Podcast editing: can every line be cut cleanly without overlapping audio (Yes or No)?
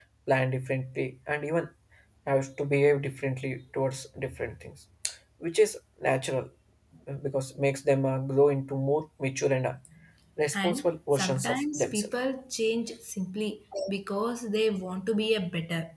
No